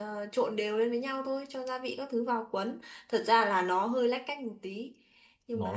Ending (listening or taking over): taking over